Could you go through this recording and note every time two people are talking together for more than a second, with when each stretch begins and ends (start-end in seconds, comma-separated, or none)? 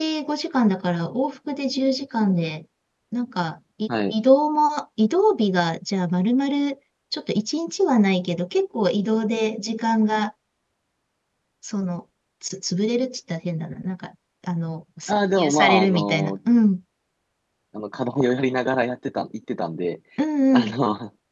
15.1-16.4